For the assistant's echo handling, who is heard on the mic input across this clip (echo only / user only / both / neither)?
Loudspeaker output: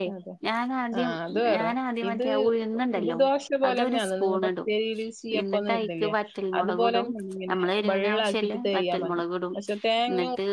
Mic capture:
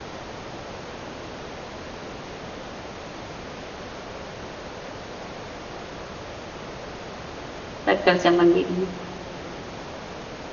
user only